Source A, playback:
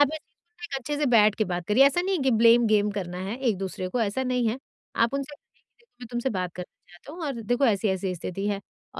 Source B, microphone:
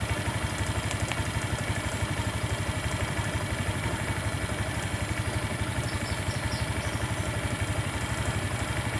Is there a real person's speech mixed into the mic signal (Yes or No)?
No